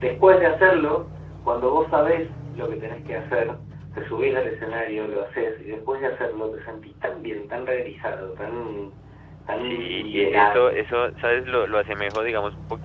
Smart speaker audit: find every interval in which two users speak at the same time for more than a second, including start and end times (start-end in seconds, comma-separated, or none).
9.5-10.8